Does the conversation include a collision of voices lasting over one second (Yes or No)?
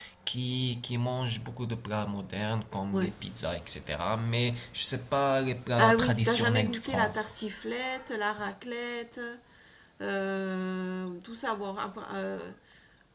Yes